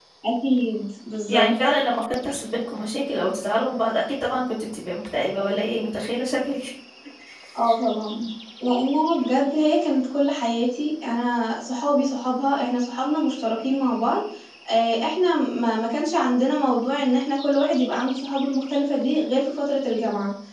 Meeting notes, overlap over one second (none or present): none